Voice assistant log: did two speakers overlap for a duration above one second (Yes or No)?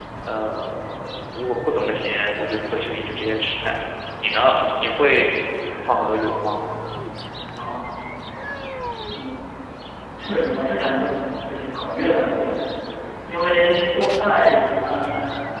No